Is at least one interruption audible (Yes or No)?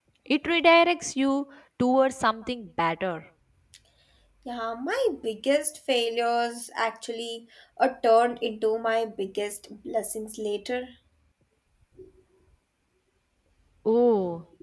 No